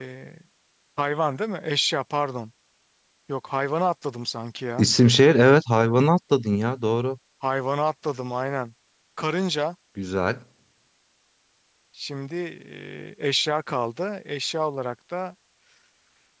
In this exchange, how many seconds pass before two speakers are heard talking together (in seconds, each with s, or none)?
none